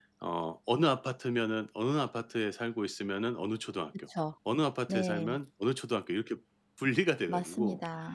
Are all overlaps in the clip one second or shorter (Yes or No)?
Yes